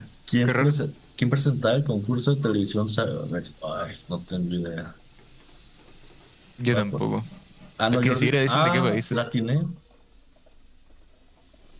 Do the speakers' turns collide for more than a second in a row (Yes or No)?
Yes